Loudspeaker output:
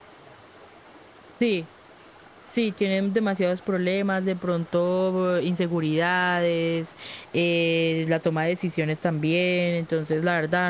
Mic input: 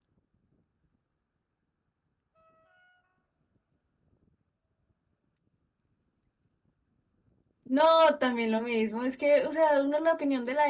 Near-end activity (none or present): present